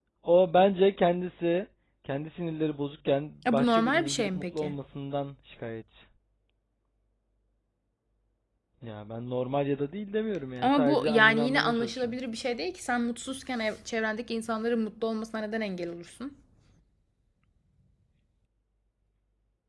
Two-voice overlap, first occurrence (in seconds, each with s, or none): 3.5 s